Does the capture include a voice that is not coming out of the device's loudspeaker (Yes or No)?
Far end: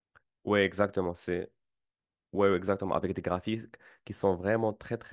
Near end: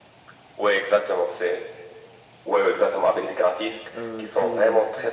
Yes